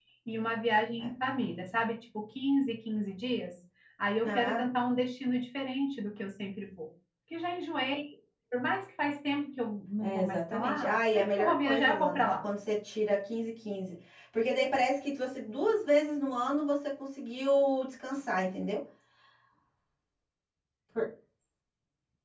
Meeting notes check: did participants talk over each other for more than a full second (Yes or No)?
Yes